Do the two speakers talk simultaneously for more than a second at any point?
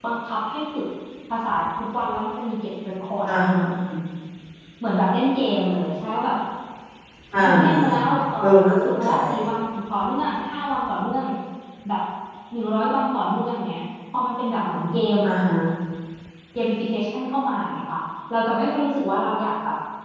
Yes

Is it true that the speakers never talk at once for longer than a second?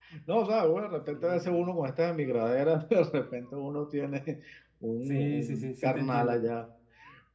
No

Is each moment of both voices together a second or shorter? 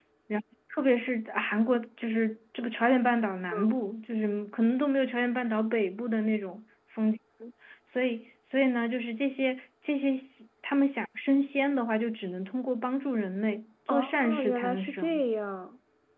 No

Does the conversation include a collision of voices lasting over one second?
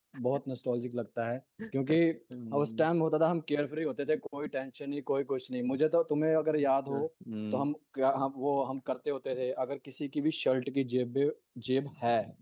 No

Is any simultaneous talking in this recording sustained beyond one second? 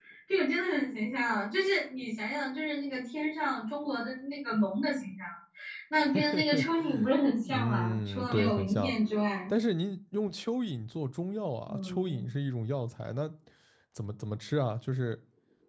Yes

